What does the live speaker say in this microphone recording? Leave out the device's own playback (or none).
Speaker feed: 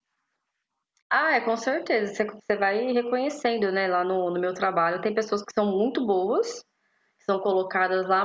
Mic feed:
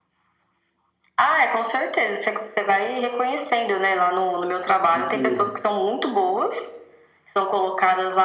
de que